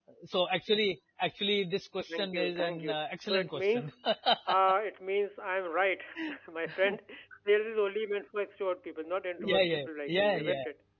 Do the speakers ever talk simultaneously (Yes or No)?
Yes